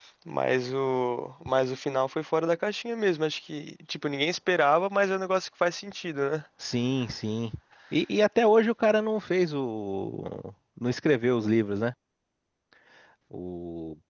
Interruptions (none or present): none